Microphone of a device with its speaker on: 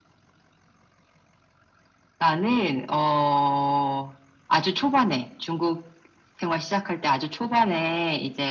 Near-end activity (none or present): none